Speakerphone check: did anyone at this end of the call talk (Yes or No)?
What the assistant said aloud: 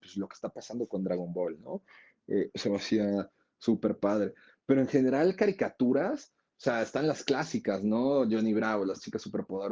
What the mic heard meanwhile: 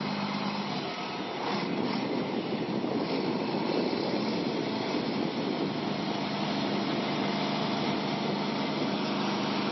No